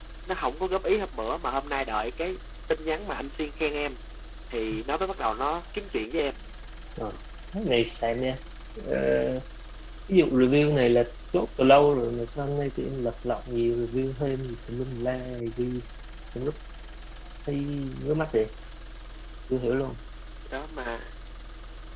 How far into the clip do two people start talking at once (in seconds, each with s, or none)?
none